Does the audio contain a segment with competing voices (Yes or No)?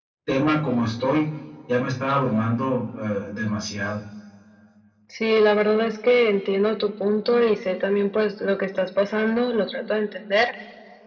No